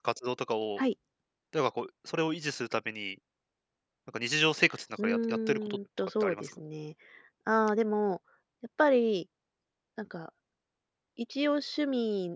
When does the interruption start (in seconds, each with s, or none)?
5.0 s